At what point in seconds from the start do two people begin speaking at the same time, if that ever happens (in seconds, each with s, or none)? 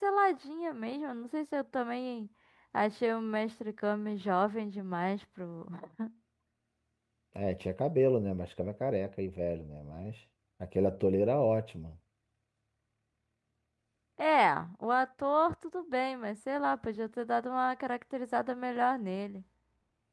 none